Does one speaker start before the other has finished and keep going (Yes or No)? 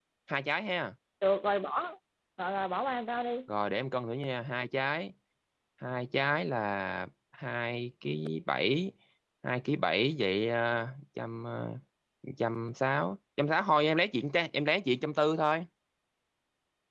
No